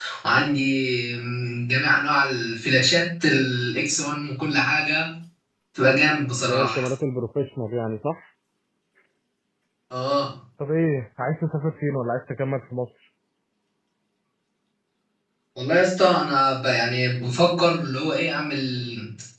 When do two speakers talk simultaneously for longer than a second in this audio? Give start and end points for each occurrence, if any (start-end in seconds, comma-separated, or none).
none